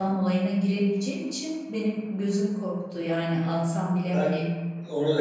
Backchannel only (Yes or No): No